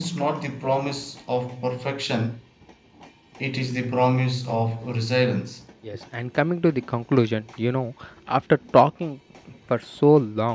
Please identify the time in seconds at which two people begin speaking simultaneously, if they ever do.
none

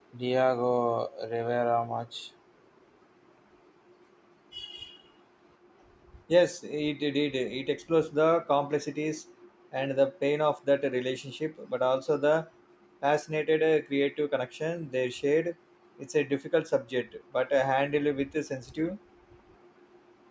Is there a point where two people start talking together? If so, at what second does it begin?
none

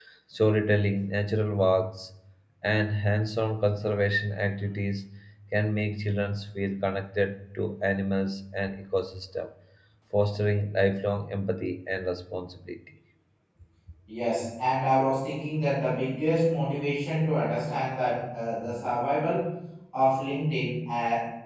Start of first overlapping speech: none

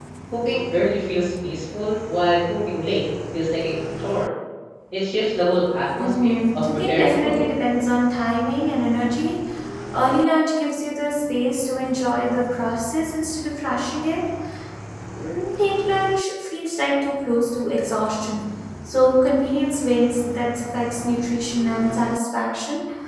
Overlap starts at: 6.0 s

